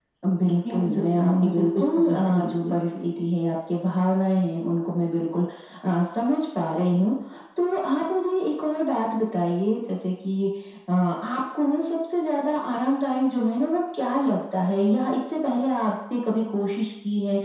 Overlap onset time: 1 s

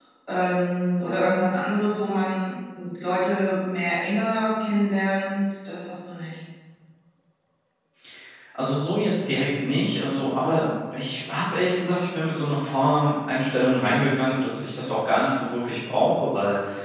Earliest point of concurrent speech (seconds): none

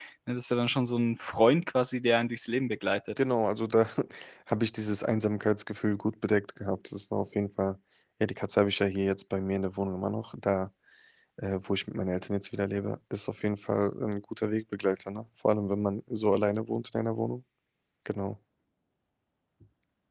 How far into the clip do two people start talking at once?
none

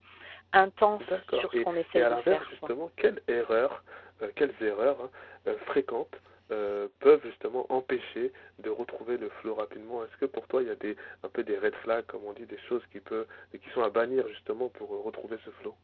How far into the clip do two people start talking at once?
1 s

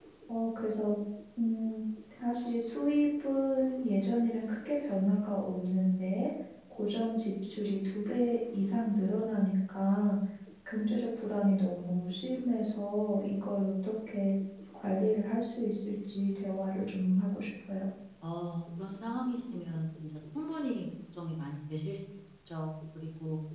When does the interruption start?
none

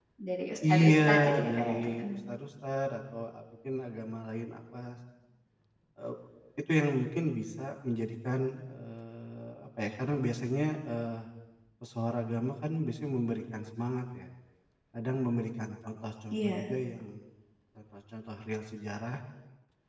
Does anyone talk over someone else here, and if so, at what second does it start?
1 s

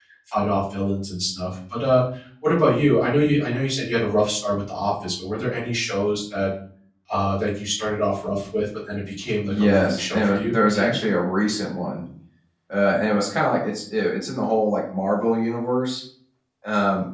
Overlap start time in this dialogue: 9 s

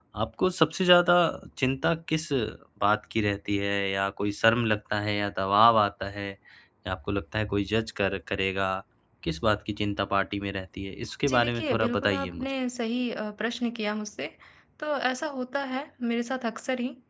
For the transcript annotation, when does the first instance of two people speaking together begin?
11 s

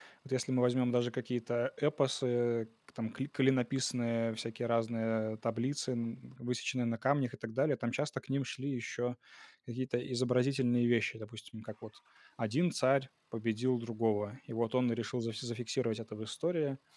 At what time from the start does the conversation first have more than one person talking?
none

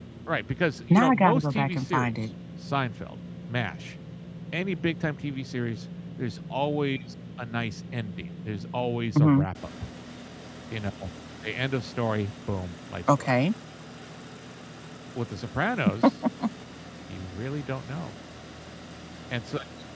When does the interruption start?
1 s

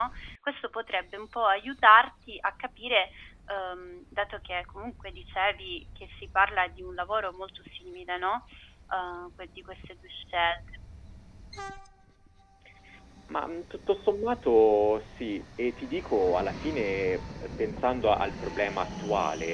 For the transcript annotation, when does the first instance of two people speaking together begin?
none

